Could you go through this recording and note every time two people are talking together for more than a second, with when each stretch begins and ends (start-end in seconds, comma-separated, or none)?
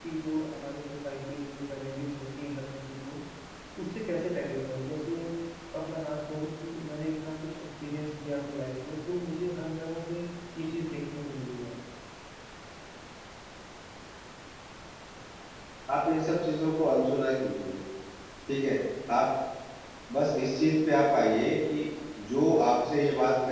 none